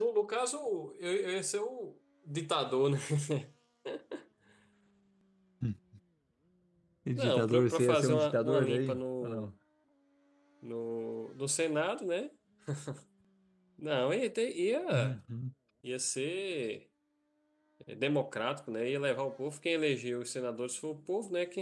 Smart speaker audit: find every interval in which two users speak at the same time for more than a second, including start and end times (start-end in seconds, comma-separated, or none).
7.1-9.5